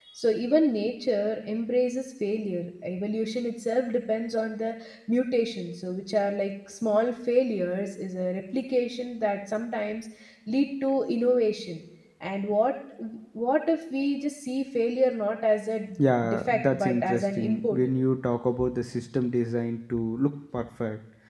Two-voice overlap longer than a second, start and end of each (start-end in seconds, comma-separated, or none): 16.3-17.8